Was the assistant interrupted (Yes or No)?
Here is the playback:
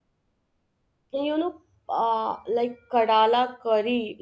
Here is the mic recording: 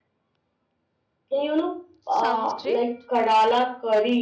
Yes